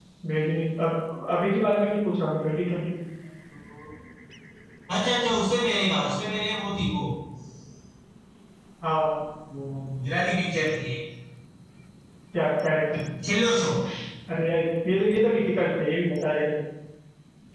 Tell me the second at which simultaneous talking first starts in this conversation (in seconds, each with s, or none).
none